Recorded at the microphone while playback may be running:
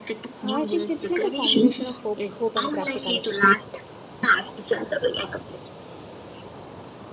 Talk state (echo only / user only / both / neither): both